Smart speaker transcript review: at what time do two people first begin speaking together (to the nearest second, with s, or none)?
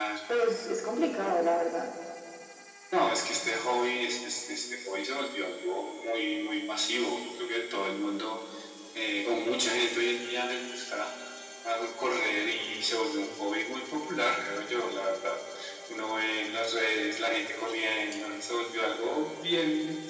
none